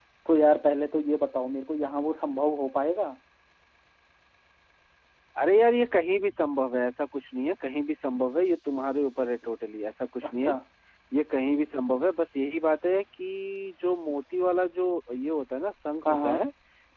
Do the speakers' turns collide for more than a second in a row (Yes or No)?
No